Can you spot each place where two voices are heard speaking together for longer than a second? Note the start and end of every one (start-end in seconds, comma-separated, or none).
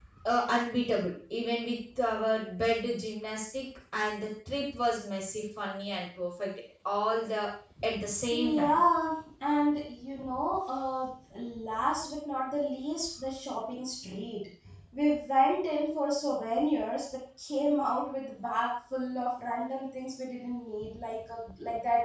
none